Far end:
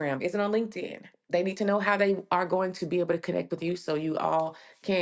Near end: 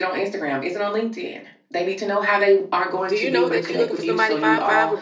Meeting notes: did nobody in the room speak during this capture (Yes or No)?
No